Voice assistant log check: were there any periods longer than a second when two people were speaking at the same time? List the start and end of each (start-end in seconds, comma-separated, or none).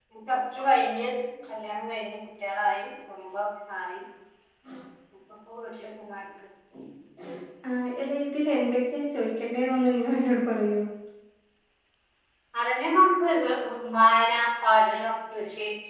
none